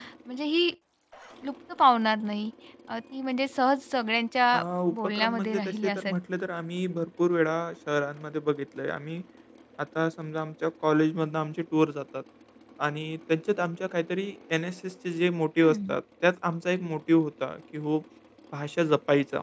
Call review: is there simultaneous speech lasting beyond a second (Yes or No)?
Yes